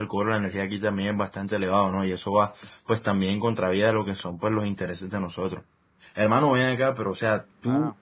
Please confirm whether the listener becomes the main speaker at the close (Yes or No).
No